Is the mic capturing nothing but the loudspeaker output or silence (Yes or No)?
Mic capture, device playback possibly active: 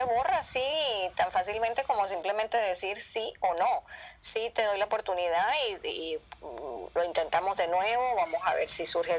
Yes